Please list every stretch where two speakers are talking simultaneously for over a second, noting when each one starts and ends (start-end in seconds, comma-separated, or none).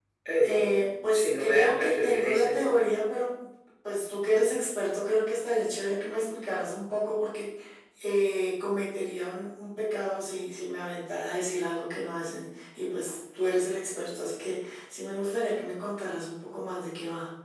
1.1-2.6